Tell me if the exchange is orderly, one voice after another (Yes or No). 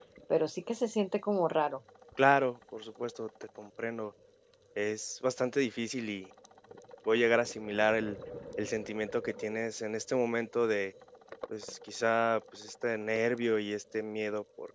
Yes